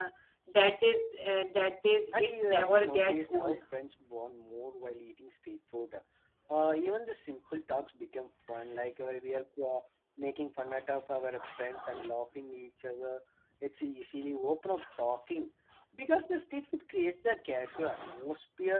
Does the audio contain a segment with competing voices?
Yes, from 2.2 s

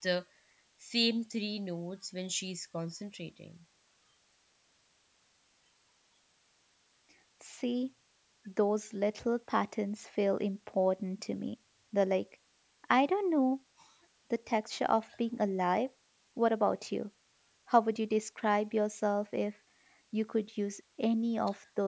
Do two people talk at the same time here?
No

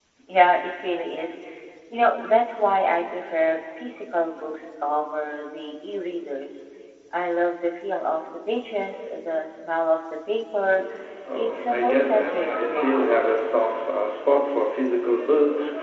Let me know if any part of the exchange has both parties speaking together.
Yes, from 11.3 s

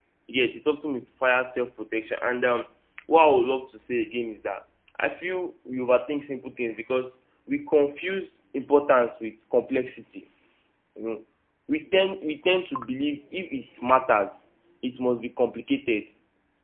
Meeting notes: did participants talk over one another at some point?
No

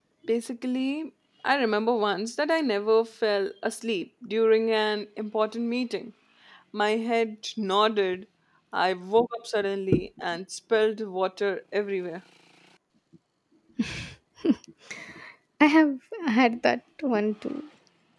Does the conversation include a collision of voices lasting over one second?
No

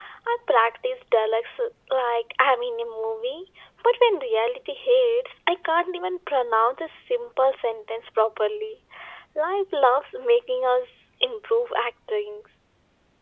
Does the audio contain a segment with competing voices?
No

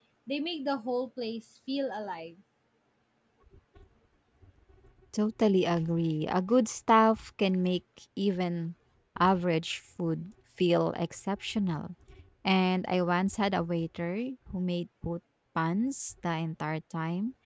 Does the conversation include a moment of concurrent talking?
No

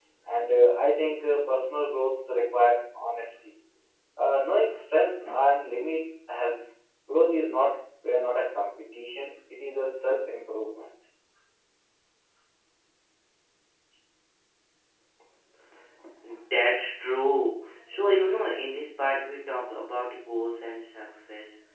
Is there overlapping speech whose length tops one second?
No

